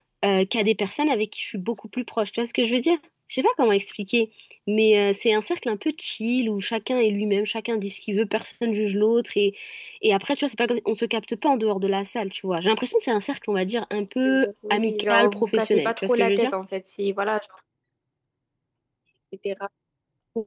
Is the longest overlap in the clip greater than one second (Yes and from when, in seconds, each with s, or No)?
Yes, from 14.2 s